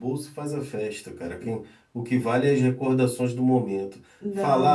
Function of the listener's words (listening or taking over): listening